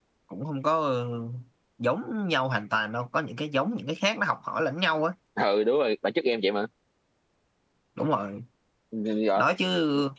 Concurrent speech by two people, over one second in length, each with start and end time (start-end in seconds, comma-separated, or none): none